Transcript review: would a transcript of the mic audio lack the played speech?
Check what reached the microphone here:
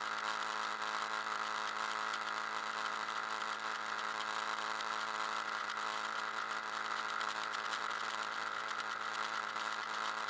Yes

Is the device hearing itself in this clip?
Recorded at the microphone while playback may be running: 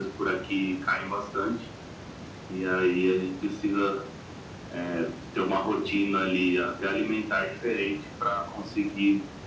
Yes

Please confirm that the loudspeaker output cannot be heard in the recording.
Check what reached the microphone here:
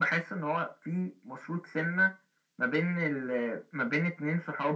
No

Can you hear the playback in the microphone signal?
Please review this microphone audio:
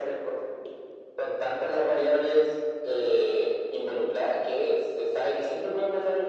Yes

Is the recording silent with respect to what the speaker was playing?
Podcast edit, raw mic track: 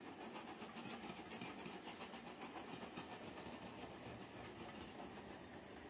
Yes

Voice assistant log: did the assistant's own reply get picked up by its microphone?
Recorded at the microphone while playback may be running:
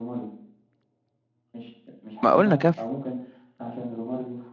Yes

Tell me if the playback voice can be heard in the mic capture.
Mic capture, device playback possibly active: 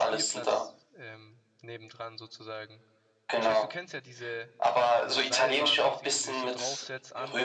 Yes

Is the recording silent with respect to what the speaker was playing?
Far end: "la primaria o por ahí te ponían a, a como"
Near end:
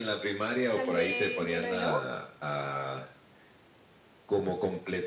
No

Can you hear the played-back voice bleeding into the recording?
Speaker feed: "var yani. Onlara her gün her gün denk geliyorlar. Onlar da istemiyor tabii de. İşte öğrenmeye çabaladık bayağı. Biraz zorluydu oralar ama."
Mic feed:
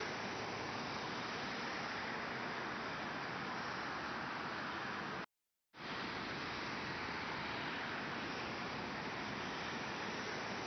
No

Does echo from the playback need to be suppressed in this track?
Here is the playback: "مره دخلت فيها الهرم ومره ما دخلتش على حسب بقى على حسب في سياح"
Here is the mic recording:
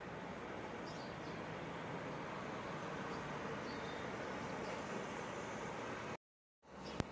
No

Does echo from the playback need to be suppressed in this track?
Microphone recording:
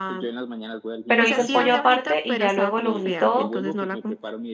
Yes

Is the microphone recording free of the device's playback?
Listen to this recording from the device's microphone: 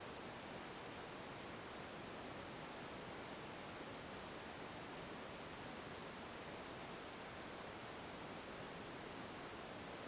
Yes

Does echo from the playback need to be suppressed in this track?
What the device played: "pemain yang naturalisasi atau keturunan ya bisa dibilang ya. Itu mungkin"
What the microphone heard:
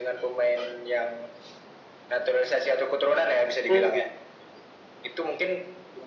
Yes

